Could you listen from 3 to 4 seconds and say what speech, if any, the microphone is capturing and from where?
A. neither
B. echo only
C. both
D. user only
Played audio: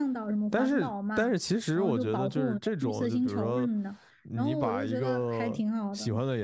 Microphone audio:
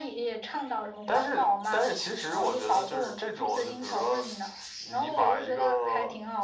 B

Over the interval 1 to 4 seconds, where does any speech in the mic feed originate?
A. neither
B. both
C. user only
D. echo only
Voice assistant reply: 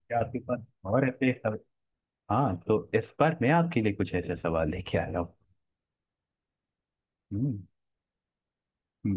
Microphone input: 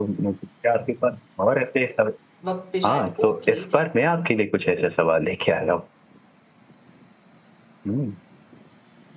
B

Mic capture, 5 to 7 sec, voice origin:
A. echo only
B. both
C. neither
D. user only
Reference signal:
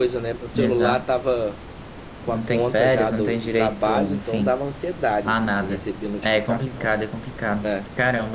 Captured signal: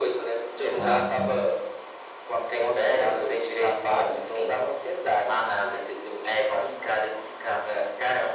A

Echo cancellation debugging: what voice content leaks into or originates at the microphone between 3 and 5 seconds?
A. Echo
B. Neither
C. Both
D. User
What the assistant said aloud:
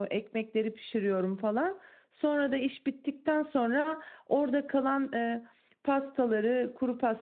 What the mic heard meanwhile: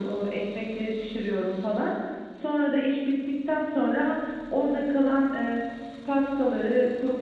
A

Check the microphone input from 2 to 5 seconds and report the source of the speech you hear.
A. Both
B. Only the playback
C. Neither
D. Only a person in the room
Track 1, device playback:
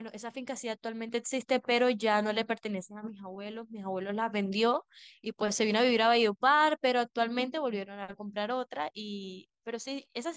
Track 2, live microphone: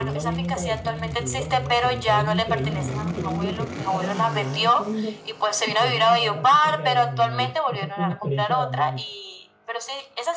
A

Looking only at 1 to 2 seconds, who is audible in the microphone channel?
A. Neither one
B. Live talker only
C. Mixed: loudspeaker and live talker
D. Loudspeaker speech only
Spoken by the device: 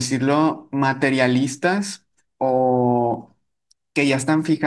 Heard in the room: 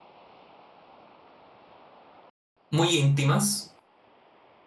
A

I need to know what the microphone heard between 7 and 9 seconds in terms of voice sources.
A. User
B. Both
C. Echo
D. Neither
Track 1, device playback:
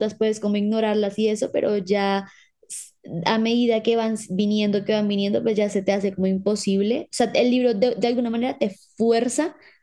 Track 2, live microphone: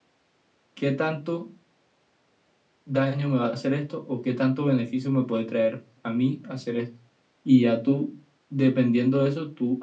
A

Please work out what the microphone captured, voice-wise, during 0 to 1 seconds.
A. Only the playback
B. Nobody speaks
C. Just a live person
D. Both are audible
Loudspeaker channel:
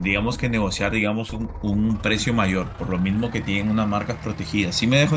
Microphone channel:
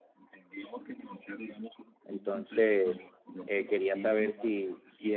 A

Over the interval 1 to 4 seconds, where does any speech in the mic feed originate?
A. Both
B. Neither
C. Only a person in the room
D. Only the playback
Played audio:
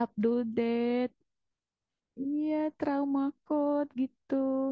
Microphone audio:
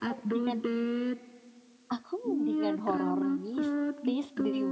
A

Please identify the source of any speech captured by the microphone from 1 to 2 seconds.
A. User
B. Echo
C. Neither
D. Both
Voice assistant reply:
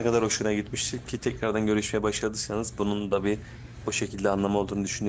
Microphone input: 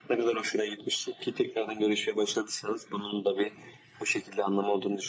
B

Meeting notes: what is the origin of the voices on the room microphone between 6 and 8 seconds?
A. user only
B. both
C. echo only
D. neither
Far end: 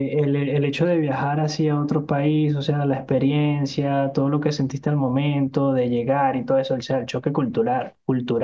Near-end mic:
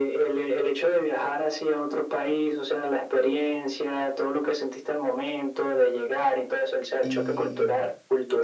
B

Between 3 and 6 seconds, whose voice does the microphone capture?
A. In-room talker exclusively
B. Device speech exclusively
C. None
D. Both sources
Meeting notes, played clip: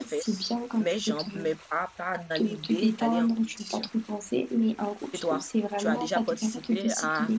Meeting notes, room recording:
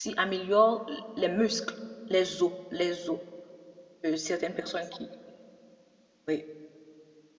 A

